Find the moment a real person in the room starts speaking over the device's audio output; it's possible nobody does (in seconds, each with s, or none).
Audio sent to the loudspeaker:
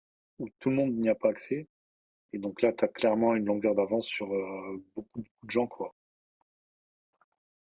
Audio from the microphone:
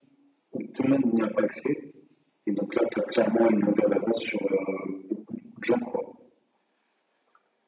none